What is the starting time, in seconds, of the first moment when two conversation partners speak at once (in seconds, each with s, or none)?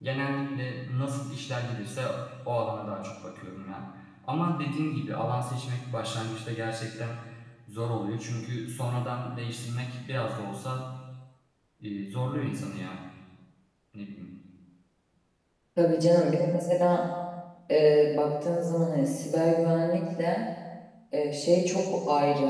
none